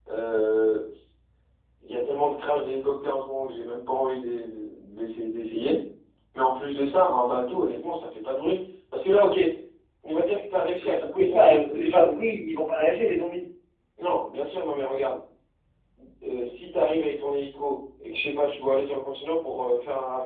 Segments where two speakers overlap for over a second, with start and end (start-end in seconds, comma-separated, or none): 10.8-12.4